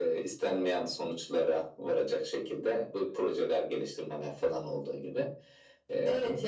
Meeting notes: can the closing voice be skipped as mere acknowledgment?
No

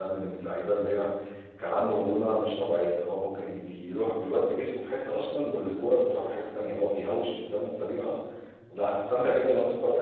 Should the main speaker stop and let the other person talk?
No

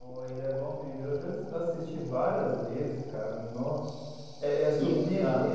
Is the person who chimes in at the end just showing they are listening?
Yes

